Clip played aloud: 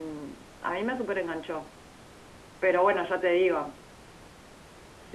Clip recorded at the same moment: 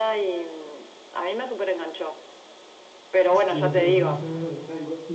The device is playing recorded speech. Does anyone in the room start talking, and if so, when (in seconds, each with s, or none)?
3.3 s